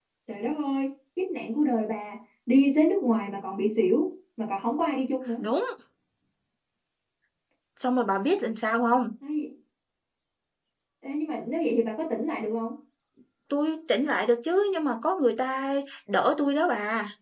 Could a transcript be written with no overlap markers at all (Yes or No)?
Yes